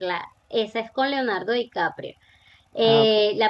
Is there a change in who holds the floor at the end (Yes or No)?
No